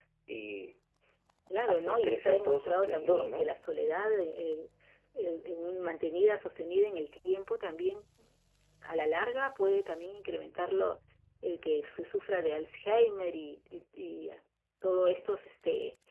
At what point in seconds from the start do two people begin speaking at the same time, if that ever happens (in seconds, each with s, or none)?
1.7 s